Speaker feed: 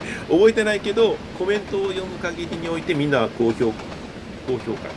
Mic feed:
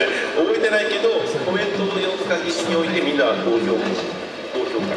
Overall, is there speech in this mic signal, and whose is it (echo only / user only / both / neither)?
both